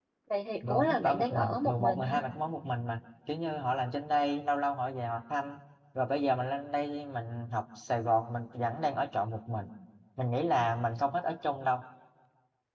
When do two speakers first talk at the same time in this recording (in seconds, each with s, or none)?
0.7 s